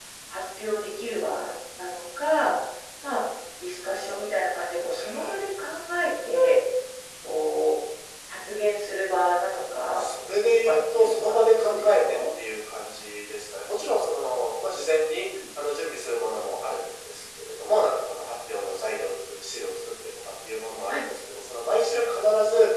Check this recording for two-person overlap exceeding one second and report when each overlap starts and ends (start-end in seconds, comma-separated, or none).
10.6-12.2